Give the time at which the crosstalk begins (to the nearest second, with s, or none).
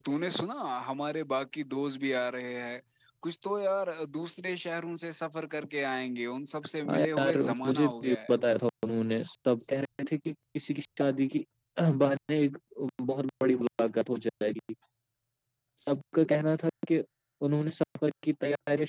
7 s